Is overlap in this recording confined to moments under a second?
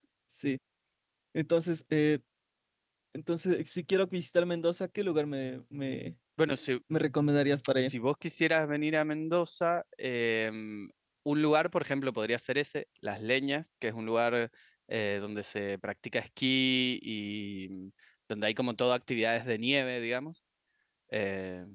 Yes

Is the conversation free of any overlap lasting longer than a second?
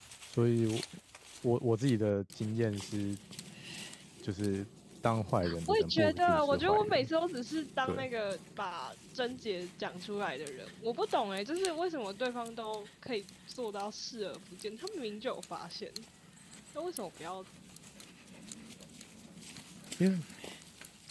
No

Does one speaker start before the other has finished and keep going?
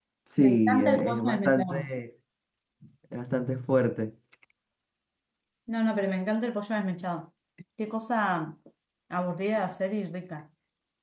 Yes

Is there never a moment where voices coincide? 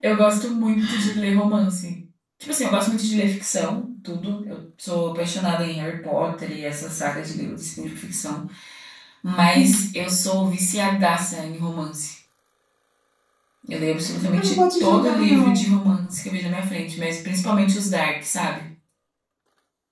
No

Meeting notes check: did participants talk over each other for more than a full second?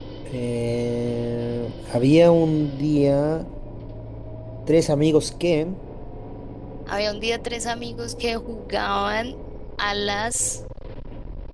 No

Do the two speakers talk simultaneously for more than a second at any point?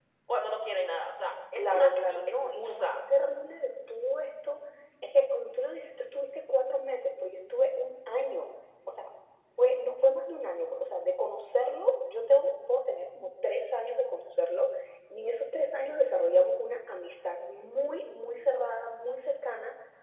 Yes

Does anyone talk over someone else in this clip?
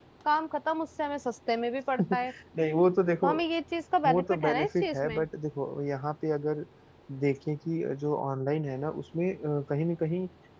Yes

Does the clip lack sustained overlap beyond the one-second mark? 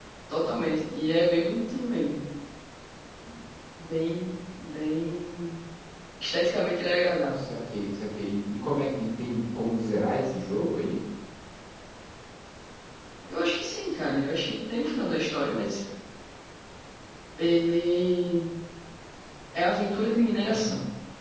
Yes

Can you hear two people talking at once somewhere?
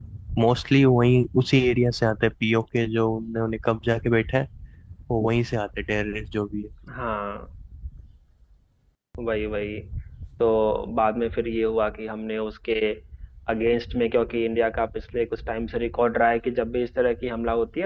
No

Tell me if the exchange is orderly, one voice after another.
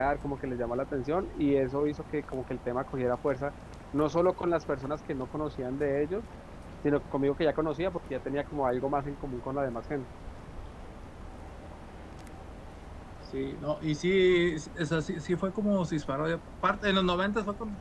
Yes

